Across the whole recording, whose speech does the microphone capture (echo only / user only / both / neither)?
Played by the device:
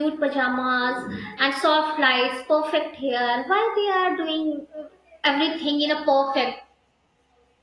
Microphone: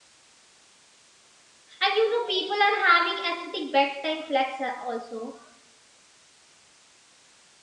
user only